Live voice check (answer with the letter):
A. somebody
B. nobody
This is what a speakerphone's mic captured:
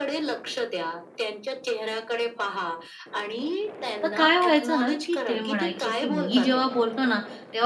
A